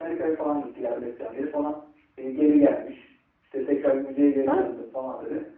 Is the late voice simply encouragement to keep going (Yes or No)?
Yes